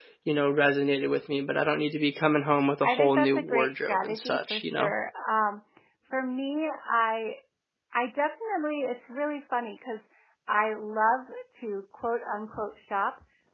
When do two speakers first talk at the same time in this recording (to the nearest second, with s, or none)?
3 s